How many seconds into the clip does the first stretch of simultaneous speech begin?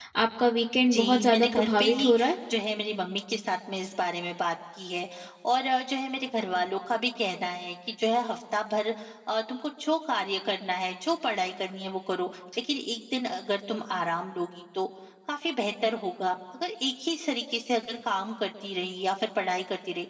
0.9 s

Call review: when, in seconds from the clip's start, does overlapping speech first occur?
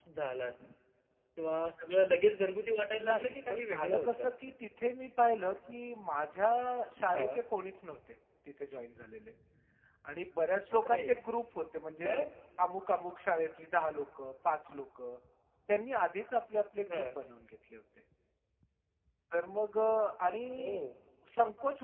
3.1 s

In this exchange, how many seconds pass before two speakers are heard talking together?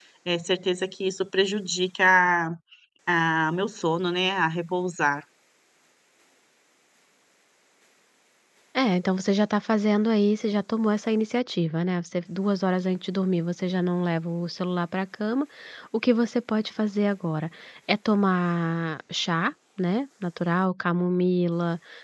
none

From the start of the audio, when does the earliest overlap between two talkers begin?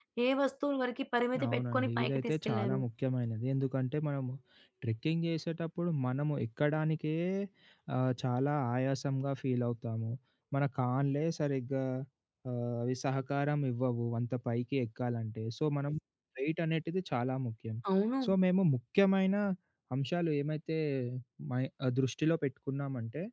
1.4 s

